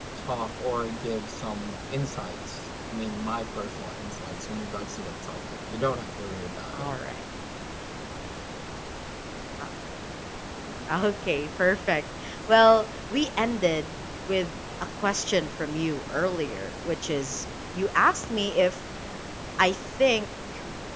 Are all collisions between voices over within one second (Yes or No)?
Yes